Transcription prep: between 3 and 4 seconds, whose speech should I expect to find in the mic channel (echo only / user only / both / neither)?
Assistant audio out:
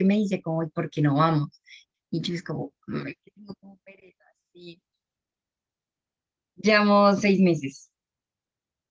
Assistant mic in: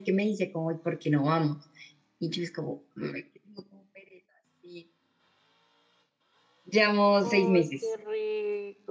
echo only